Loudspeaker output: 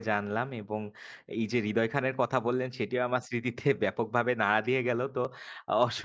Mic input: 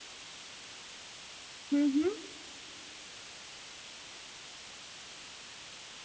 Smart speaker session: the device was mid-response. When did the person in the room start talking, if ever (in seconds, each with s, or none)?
1.7 s